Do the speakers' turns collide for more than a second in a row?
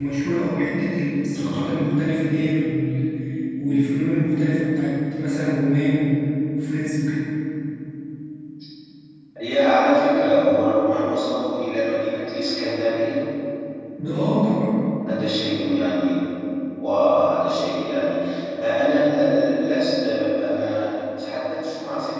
No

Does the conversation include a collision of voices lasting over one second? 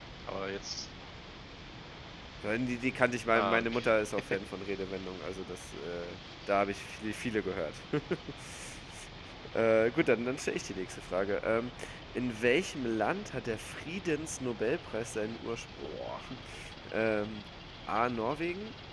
No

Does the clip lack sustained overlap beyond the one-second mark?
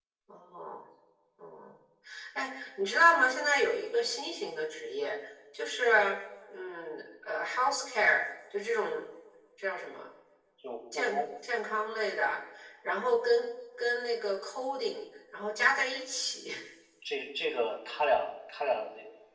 Yes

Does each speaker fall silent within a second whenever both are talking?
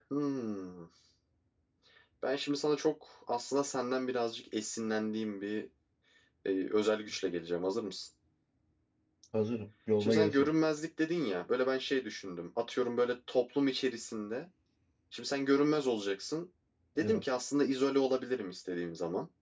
Yes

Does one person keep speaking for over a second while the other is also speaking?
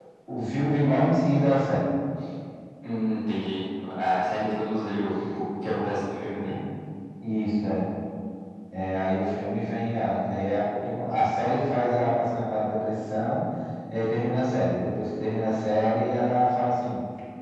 No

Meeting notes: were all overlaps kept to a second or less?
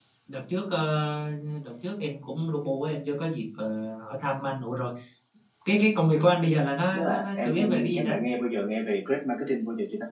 No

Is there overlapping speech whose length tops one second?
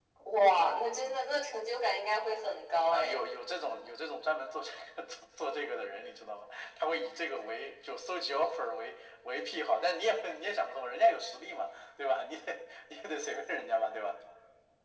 No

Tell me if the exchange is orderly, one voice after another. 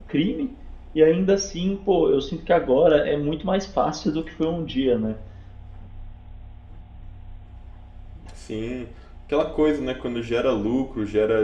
Yes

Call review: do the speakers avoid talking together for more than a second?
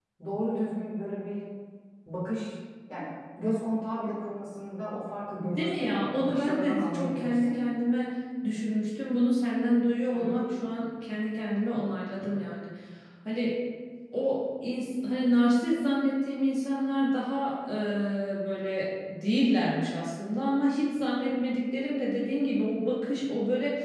No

